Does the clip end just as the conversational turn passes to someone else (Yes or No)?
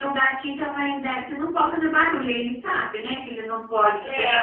Yes